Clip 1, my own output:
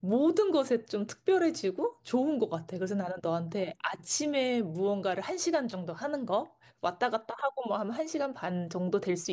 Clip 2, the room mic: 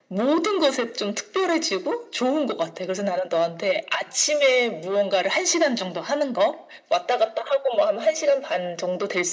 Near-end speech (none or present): none